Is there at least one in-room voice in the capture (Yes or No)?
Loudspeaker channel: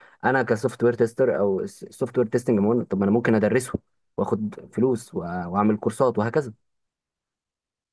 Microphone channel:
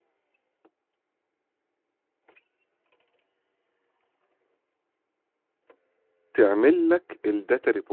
Yes